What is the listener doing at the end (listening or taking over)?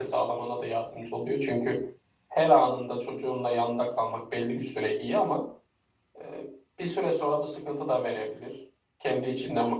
listening